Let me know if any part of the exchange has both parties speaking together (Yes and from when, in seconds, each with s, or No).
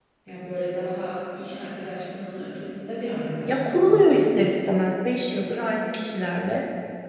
Yes, from 3.5 s